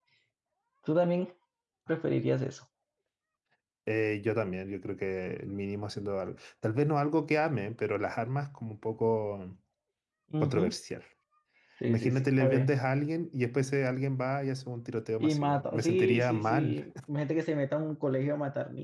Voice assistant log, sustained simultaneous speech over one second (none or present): present